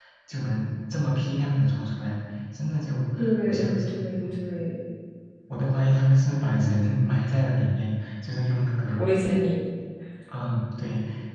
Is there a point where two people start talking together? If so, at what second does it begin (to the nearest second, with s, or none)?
3 s